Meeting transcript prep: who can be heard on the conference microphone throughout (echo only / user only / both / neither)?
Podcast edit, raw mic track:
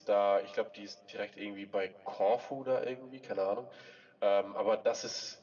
echo only